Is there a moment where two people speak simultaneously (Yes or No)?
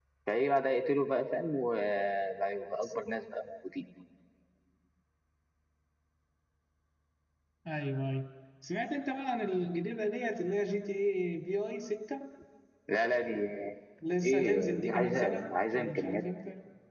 Yes